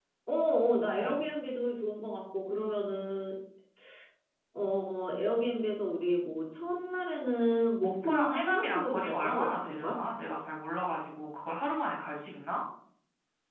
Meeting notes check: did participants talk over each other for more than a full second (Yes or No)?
Yes